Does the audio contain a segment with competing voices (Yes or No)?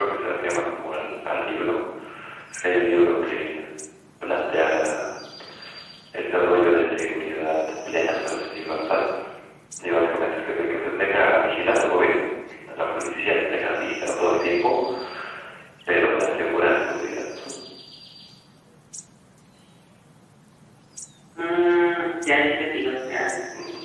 No